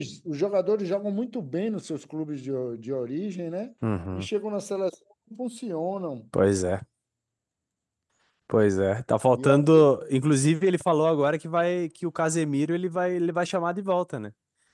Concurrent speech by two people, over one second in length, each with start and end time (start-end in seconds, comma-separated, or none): none